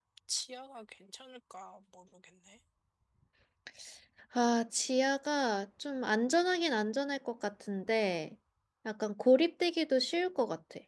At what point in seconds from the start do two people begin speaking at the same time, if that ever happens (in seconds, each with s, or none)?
none